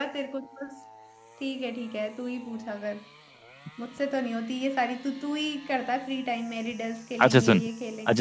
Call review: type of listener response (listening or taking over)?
taking over